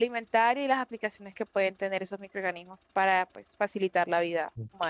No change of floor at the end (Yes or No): No